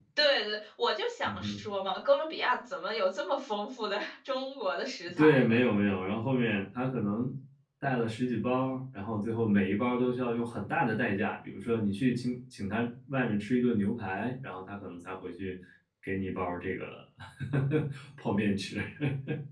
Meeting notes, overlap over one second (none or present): none